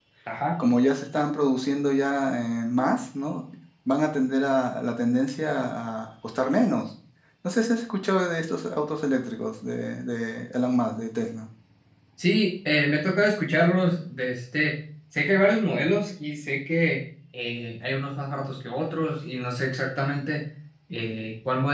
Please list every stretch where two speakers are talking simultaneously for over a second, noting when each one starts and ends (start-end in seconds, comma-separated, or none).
none